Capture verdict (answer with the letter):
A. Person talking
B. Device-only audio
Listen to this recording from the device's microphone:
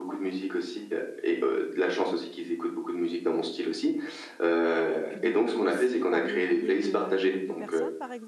A